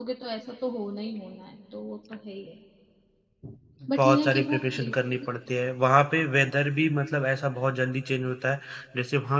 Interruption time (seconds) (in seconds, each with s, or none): 4.0 s